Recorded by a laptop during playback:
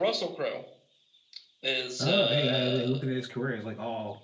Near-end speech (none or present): present